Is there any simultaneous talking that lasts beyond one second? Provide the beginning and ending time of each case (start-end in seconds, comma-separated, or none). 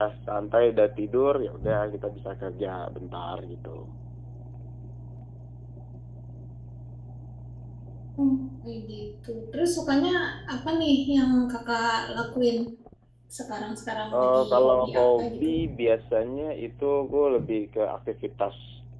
14.1-15.5